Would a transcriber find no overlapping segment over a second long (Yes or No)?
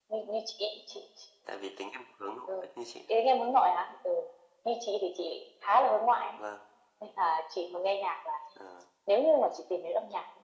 Yes